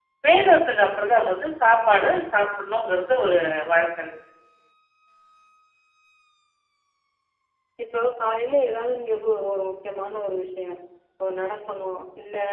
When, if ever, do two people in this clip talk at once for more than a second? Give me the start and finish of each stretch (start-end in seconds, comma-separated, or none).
none